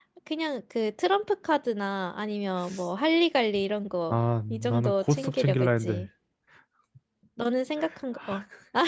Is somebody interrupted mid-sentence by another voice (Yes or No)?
Yes